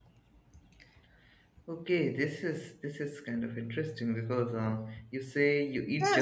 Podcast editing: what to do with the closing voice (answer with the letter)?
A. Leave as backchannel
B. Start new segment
B